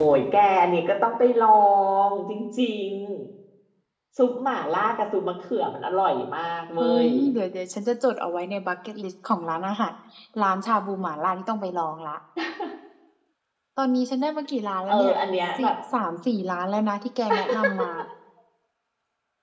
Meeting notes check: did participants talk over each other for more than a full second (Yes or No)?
No